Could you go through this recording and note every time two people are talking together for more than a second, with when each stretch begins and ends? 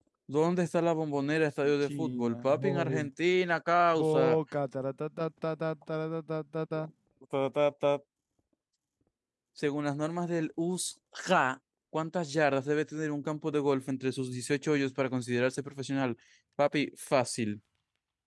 1.6-3.0

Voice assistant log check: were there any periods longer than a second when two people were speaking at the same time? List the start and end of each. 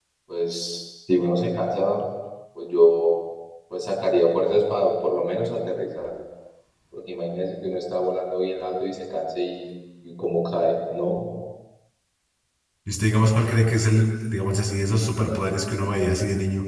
none

